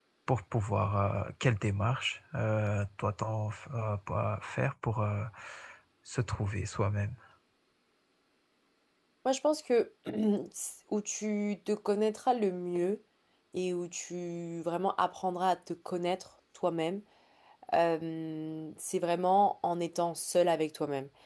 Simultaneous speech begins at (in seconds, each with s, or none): none